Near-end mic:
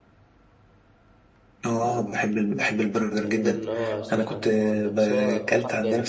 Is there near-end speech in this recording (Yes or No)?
Yes